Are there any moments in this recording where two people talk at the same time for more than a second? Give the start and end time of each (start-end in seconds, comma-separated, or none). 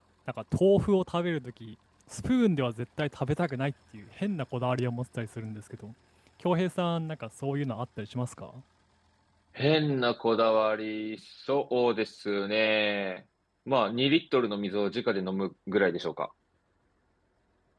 none